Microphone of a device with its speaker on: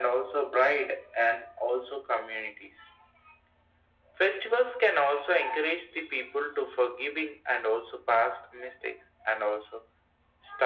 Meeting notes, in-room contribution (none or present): none